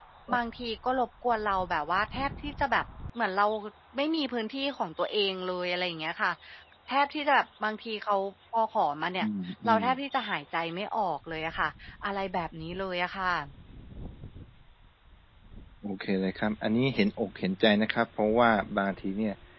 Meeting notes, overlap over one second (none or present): none